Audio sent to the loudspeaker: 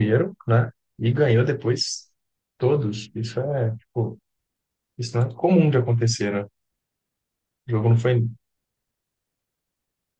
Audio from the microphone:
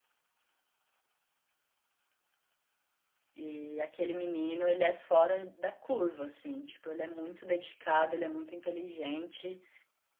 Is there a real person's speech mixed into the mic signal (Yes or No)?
Yes